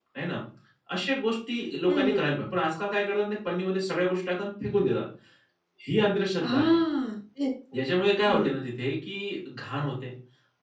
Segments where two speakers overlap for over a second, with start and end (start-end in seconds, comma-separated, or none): none